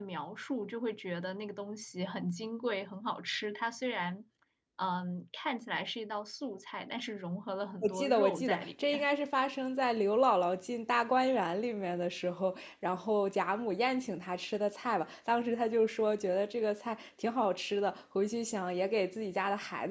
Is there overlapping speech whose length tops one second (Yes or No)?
Yes